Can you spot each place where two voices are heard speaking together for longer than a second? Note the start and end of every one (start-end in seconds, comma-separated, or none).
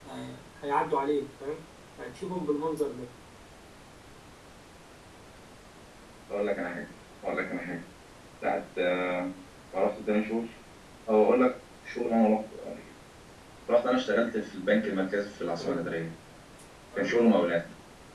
none